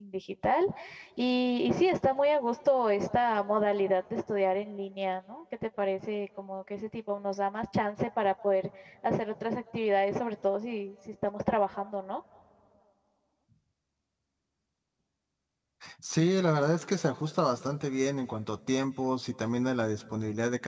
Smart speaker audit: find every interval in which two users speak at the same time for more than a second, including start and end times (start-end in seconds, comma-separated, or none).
none